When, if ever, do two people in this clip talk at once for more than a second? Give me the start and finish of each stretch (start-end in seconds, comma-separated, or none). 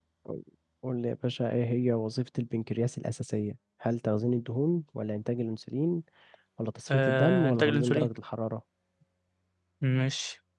6.9-8.1